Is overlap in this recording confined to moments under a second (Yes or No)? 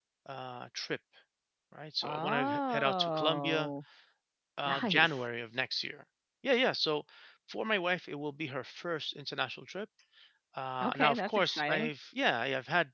No